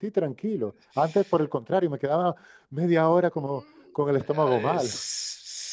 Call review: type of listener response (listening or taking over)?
taking over